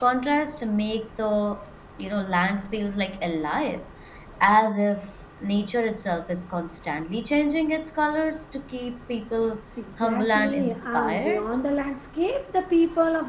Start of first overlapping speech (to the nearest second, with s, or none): 10 s